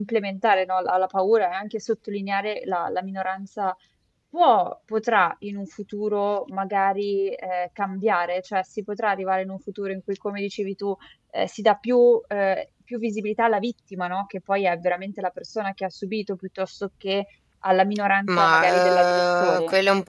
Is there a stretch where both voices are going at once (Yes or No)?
Yes